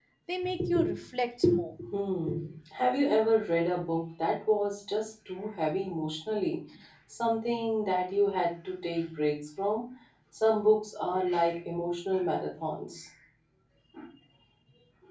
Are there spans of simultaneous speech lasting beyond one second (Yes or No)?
No